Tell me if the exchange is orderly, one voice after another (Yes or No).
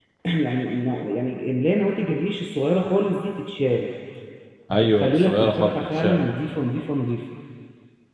No